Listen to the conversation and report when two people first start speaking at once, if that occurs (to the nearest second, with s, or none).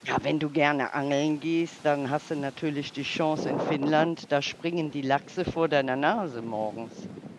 none